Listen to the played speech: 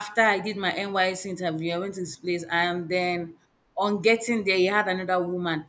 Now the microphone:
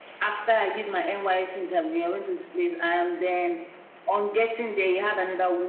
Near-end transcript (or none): none